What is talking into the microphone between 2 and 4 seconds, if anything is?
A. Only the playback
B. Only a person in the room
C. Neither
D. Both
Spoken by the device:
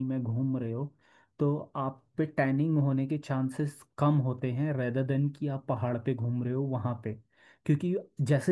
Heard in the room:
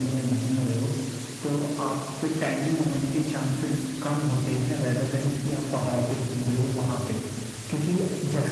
A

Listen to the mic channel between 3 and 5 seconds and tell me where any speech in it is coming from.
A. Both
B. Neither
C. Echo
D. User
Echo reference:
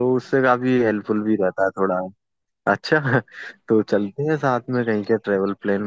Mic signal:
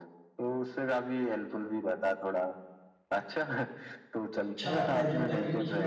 A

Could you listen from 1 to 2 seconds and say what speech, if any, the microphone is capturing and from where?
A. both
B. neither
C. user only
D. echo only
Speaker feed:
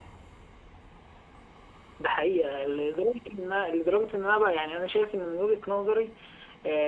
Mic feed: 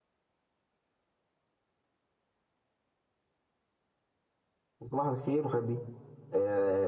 B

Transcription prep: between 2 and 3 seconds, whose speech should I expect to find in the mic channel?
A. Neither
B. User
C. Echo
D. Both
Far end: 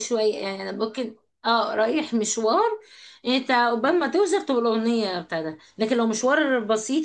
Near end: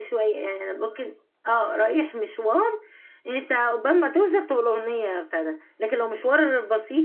C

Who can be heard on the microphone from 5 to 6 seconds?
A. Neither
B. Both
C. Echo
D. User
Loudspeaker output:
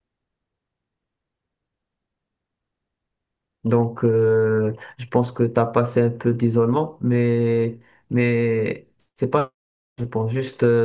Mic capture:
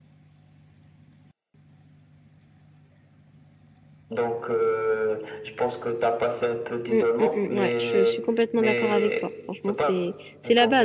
C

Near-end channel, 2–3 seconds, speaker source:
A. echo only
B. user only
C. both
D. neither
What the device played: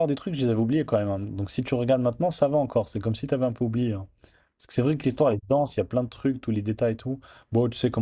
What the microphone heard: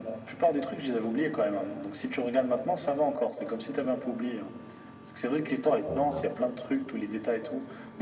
A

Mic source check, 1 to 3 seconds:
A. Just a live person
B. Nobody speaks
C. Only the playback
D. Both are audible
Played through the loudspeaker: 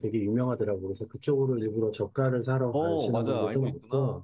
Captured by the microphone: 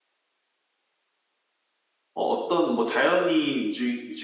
A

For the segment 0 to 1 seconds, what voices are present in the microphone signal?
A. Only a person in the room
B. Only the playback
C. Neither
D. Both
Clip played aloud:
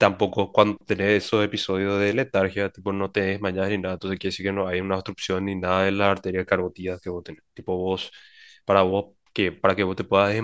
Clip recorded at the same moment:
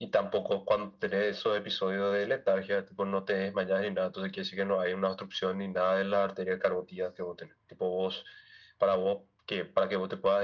B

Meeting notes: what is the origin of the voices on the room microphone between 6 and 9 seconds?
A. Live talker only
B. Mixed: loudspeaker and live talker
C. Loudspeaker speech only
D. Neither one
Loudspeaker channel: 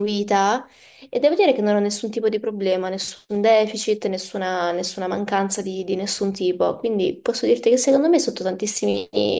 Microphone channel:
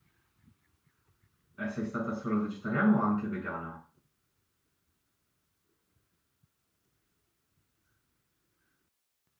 D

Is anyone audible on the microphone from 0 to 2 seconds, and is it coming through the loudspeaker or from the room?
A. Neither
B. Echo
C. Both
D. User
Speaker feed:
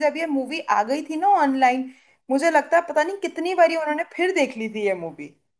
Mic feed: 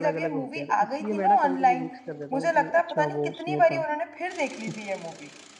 C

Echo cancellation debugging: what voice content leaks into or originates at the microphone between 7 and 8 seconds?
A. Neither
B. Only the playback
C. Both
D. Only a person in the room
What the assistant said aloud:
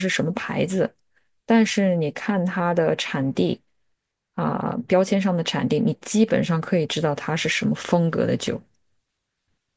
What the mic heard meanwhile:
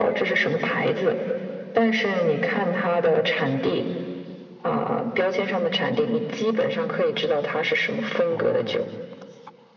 B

